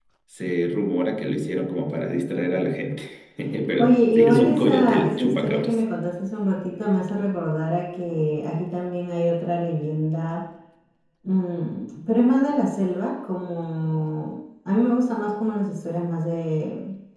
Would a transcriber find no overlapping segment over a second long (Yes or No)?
No